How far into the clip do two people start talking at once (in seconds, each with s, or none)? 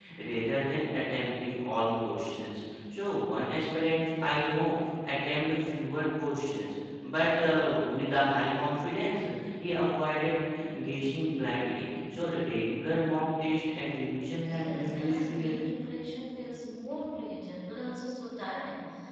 14.4 s